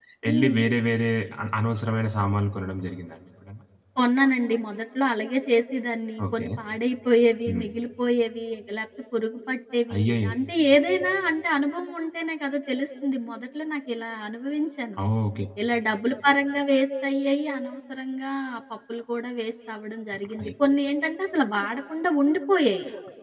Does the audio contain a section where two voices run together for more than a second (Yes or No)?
No